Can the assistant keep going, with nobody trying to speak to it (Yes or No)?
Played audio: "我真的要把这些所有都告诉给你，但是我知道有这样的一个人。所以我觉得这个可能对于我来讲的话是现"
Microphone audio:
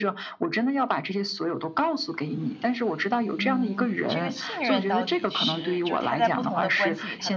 No